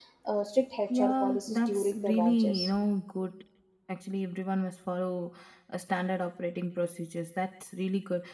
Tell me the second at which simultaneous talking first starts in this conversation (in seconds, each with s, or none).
0.9 s